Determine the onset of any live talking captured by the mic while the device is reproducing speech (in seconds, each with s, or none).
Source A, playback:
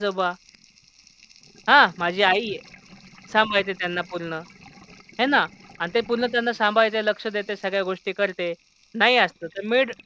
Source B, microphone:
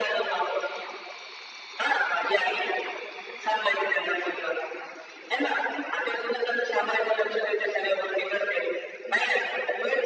none